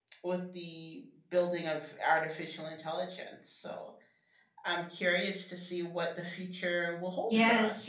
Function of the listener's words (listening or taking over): taking over